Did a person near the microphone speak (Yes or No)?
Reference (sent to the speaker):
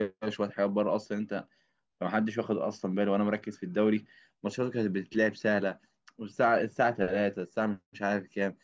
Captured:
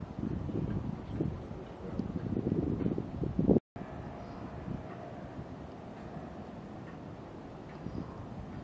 No